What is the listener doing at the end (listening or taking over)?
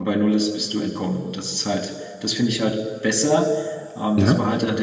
listening